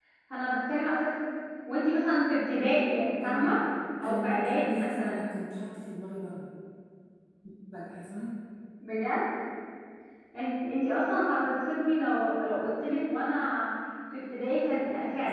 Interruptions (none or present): present